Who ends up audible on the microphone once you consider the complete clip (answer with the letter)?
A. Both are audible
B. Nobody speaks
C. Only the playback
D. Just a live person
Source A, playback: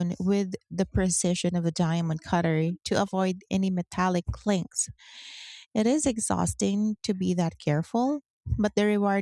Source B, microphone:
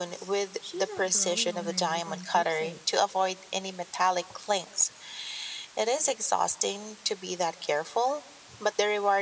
A